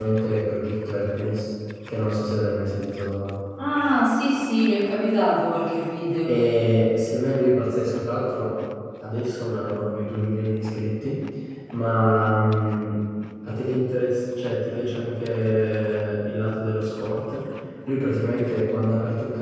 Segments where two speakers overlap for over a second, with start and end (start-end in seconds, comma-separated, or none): none